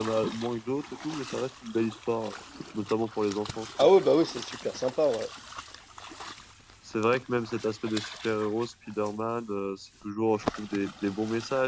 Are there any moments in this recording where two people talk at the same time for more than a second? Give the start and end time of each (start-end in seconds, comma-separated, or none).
none